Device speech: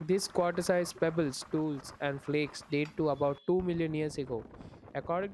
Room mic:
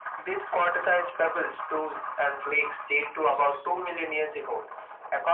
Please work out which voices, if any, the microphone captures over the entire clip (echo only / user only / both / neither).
echo only